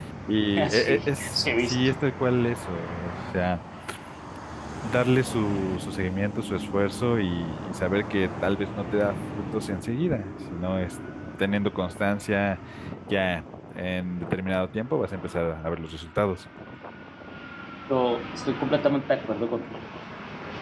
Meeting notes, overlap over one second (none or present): present